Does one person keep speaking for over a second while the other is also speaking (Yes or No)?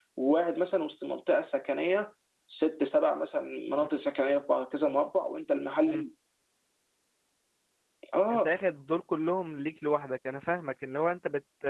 No